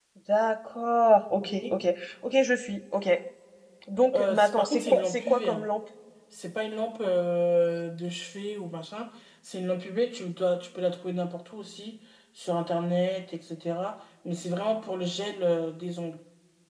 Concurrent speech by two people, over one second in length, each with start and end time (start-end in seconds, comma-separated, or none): 4.1-5.7